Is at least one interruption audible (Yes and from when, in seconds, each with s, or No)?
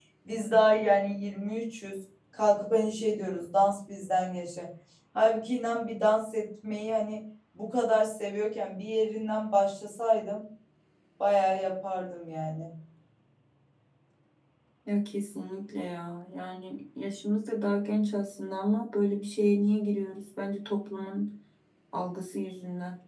No